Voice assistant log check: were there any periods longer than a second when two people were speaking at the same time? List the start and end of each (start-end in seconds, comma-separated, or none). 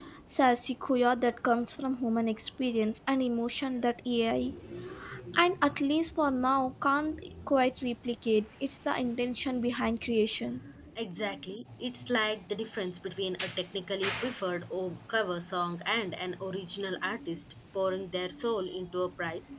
none